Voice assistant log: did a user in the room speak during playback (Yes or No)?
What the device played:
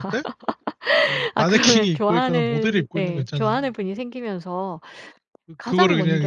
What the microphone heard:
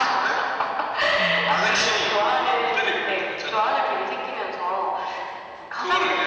Yes